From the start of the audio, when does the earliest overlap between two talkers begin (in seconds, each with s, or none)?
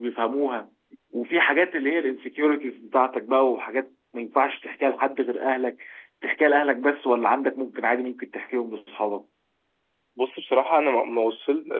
none